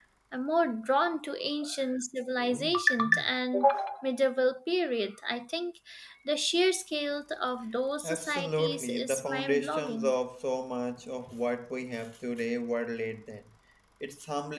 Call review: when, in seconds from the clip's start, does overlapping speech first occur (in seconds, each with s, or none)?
8.0 s